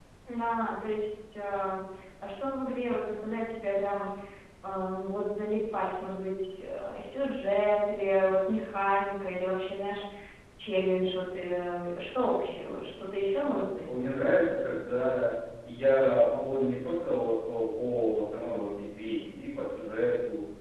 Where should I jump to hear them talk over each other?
none

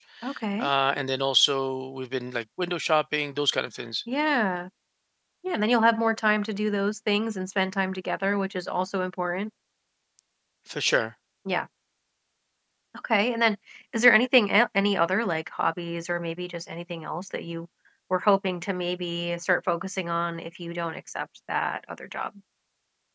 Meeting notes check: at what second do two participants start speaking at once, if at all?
none

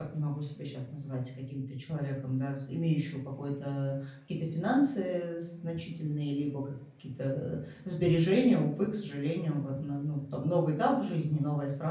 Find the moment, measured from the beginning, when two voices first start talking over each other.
none

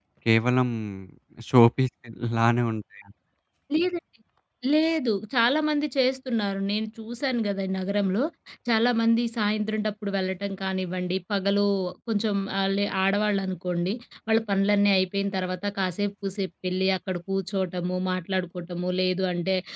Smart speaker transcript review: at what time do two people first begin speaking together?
none

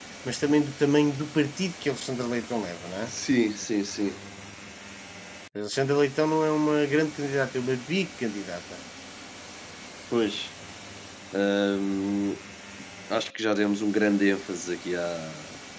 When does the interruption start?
none

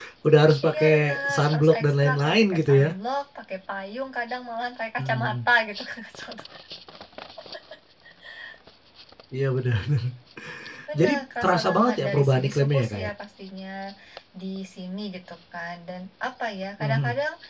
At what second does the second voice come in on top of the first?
1 s

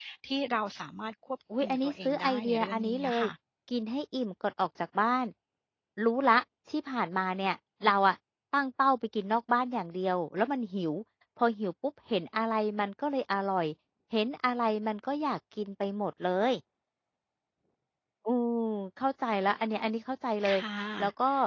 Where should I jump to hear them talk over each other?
2 s

